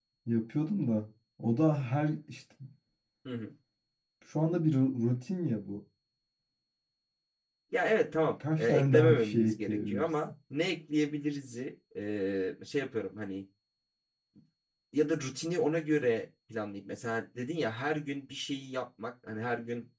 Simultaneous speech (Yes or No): Yes